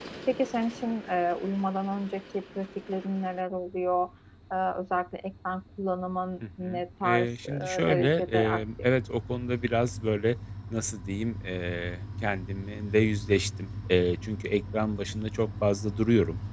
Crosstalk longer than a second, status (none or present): present